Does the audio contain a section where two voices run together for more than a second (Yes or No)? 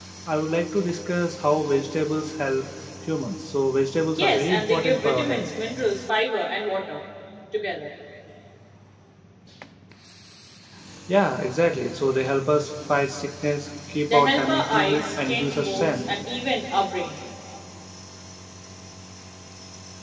Yes